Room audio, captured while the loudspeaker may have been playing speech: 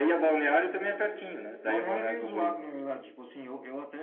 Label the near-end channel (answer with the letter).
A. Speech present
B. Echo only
A